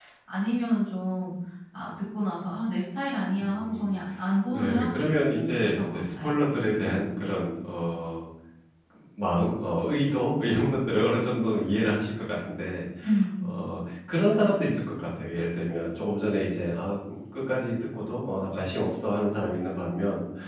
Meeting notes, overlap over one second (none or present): present